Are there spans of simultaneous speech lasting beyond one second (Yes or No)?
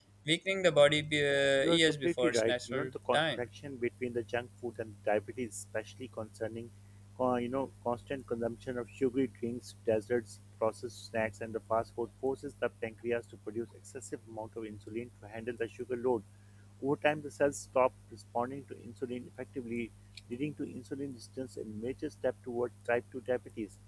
Yes